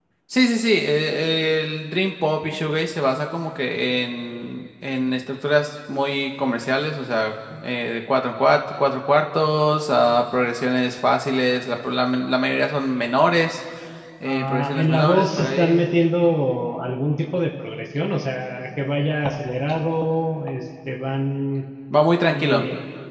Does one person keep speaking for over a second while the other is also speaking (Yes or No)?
Yes